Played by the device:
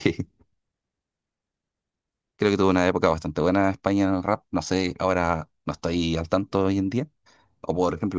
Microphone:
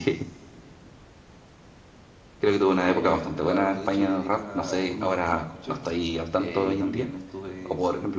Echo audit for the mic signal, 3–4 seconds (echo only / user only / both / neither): both